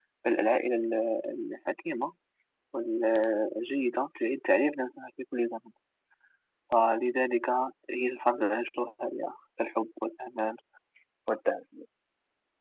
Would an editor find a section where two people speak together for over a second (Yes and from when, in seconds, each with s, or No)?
No